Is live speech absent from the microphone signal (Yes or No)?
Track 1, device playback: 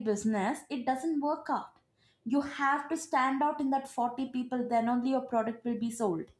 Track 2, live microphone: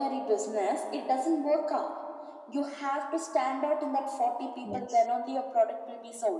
No